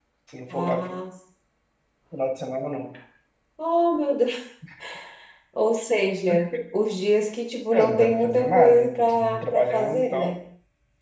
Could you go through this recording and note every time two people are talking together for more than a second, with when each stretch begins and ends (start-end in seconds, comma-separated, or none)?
7.7-10.3